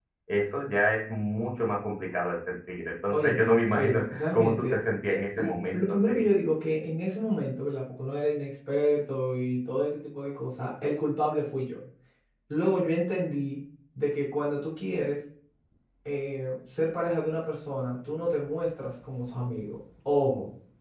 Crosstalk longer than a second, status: present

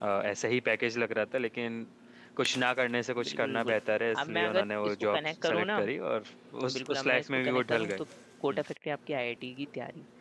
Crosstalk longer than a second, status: present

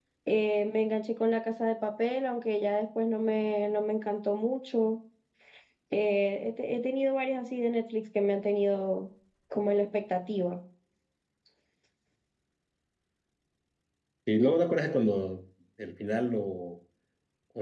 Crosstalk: none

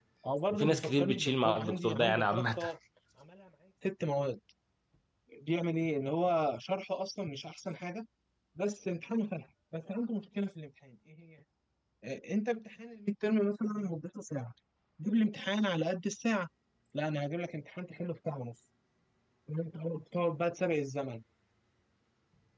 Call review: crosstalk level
present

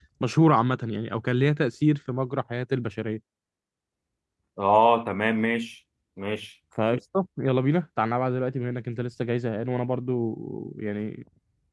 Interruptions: none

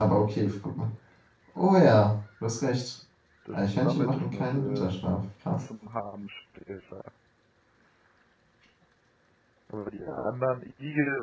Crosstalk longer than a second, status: present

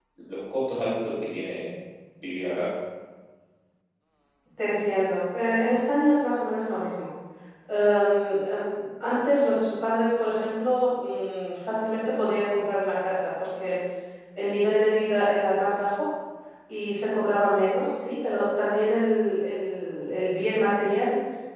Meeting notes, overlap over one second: none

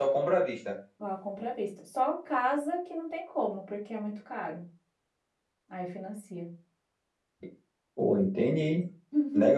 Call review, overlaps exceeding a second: none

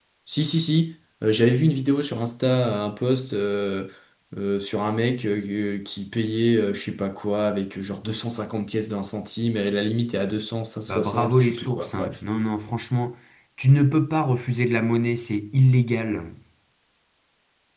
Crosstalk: present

